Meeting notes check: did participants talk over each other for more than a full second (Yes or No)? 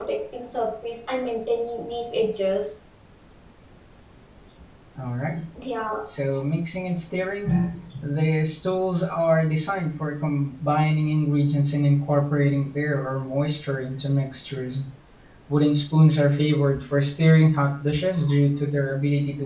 No